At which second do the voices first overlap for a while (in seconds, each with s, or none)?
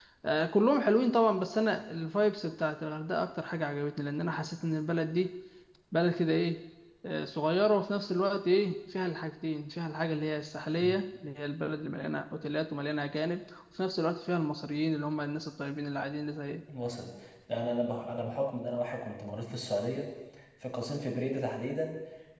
none